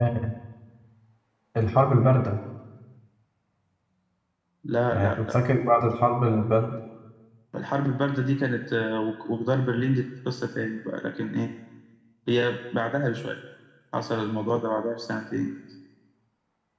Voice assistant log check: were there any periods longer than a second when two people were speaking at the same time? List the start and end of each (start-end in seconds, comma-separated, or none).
none